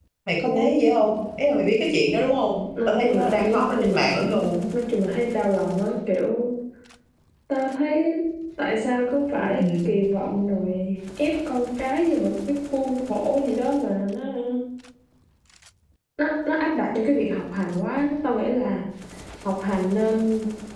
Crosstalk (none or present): present